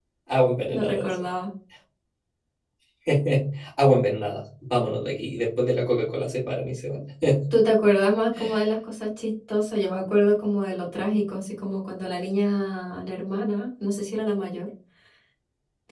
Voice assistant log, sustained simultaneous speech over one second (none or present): none